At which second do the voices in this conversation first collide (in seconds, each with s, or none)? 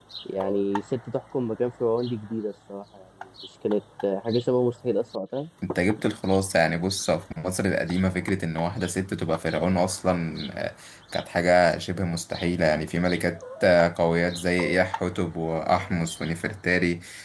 none